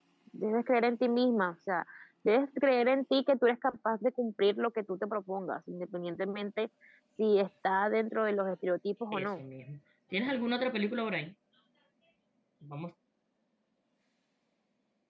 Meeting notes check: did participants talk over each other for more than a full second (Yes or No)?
No